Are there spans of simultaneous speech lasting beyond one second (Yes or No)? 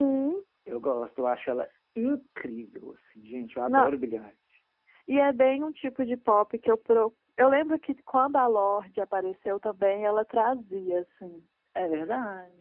No